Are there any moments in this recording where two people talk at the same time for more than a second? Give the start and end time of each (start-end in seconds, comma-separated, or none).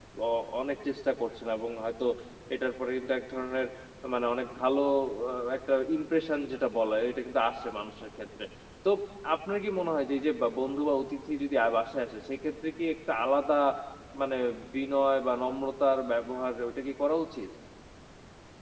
none